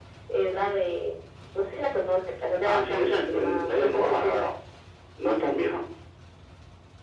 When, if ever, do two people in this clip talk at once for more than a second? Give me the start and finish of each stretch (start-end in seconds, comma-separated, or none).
2.6-4.4